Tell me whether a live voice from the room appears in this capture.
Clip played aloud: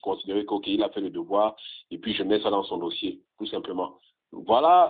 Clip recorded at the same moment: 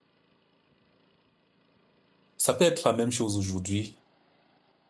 Yes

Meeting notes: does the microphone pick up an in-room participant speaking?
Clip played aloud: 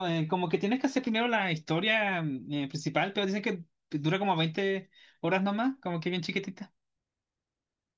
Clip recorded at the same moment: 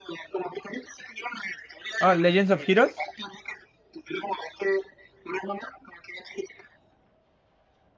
Yes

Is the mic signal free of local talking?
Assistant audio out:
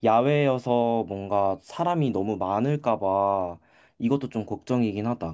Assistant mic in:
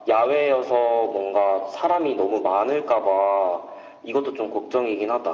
Yes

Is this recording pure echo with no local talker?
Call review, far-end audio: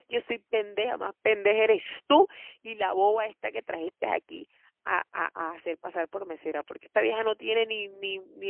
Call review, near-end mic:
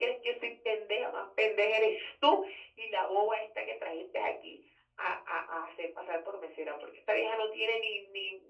Yes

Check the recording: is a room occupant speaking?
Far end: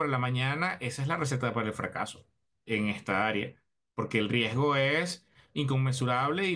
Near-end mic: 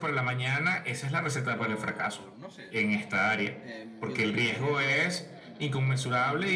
Yes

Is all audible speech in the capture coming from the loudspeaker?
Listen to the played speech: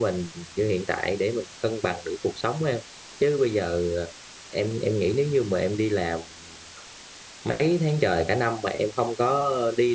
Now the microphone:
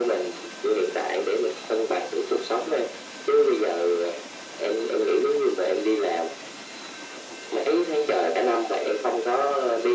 Yes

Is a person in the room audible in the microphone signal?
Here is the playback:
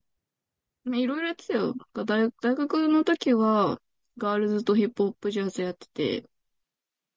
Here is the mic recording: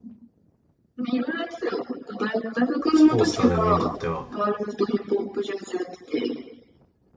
Yes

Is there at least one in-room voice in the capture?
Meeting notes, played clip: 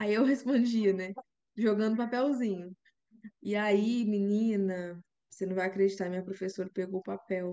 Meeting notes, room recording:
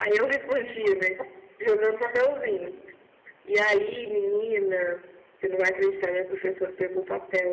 No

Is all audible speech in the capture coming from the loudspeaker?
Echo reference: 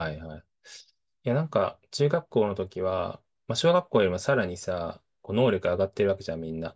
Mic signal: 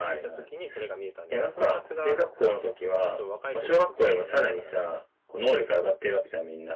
No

